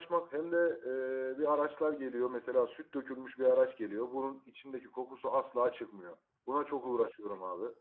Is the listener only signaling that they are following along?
Yes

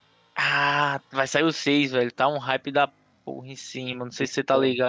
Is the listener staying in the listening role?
No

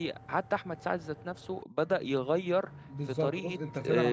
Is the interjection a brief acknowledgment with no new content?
No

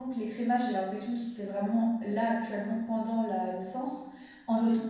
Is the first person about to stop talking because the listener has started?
No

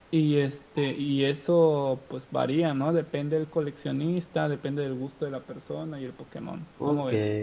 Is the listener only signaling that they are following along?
No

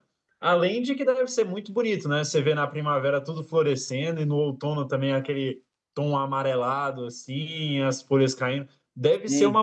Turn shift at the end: No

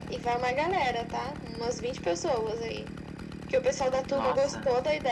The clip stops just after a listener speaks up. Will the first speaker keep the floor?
Yes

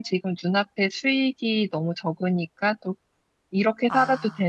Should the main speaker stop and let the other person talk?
No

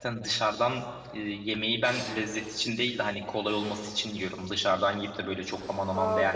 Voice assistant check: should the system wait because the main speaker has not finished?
No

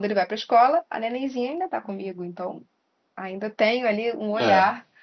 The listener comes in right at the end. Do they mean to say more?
No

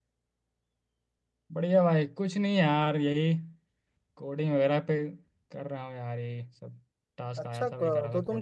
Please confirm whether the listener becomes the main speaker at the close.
Yes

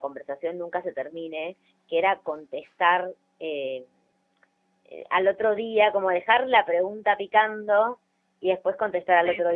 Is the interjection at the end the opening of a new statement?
No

